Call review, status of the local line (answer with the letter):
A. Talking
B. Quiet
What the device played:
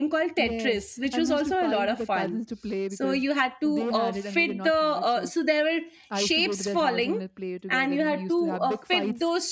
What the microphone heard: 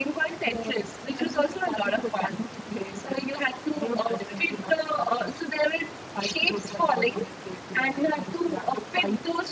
B